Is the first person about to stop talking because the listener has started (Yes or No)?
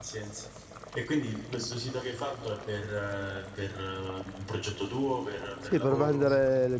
Yes